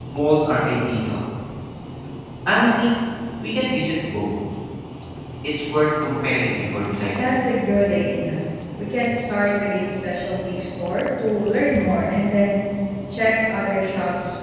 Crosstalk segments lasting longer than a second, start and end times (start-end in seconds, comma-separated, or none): none